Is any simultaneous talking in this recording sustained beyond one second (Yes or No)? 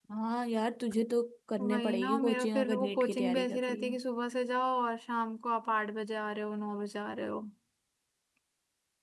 Yes